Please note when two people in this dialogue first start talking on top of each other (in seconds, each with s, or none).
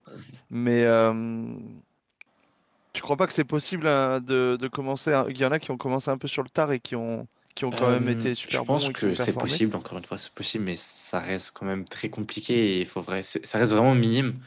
7.7 s